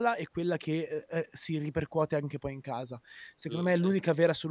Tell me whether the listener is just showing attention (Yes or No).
Yes